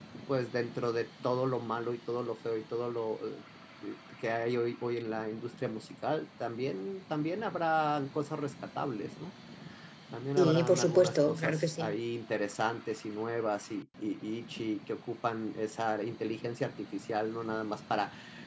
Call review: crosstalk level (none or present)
present